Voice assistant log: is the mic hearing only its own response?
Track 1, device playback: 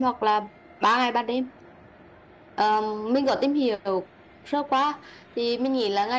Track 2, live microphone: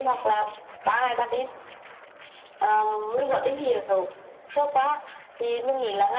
Yes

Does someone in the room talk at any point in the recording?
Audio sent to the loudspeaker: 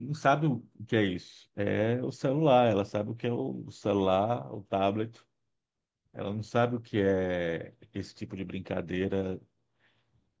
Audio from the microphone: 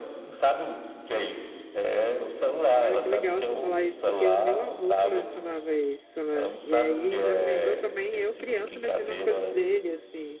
Yes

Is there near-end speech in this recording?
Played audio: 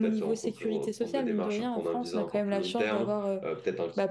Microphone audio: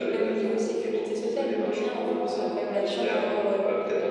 No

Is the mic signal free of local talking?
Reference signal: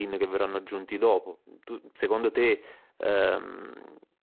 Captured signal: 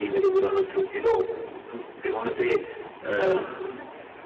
Yes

